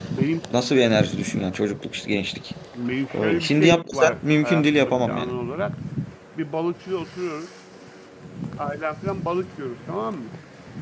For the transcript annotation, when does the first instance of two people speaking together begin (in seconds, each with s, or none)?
3.1 s